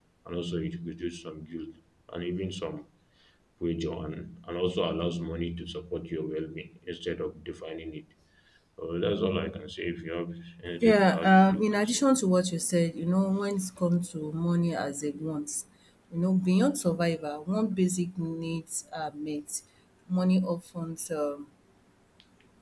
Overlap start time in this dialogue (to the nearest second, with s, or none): 11 s